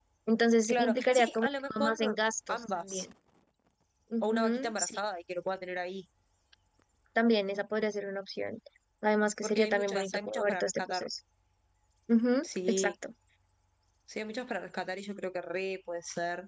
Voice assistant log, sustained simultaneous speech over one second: present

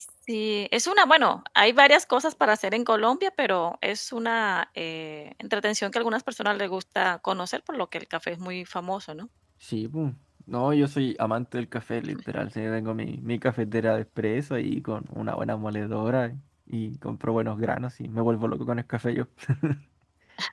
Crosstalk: none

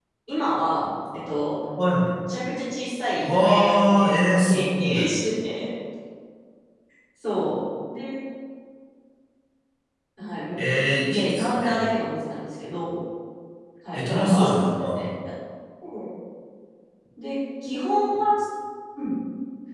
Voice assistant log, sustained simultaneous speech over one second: present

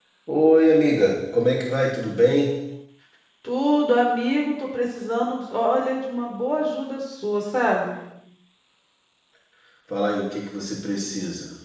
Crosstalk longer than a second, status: none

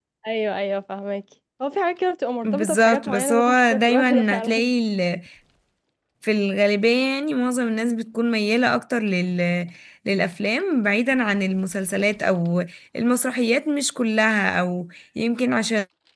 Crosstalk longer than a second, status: present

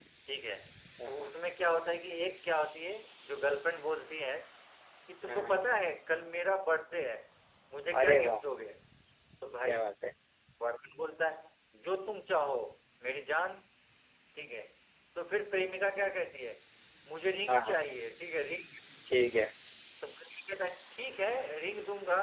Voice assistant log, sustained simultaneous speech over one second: none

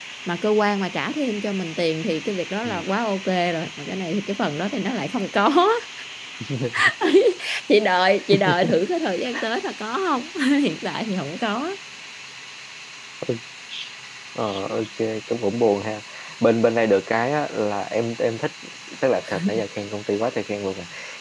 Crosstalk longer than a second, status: none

